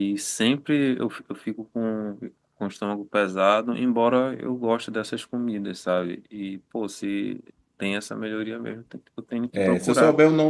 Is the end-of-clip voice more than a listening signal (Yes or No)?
Yes